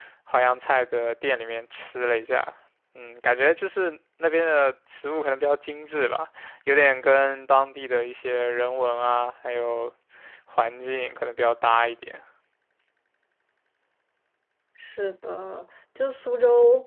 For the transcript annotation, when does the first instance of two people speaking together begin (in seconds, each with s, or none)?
none